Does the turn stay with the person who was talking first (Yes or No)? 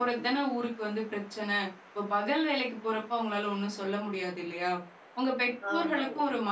Yes